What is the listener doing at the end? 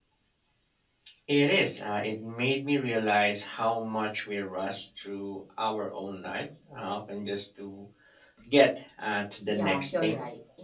taking over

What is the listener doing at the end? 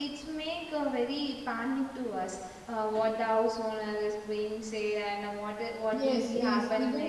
taking over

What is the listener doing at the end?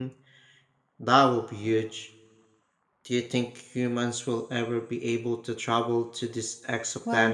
taking over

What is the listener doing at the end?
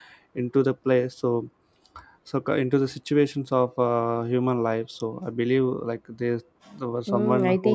taking over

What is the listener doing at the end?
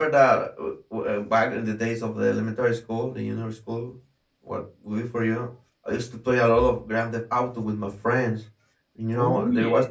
listening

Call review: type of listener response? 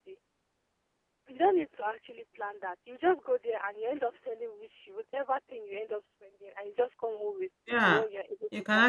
taking over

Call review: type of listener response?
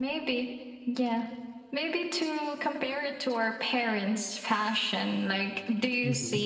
listening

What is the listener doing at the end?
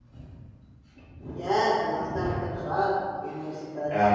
taking over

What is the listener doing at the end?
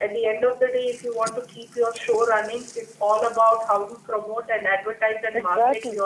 taking over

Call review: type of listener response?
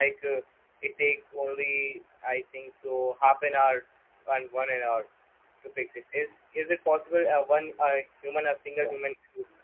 listening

